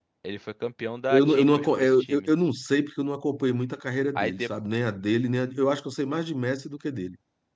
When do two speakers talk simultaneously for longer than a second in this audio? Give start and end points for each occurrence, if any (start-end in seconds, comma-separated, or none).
1.1-2.3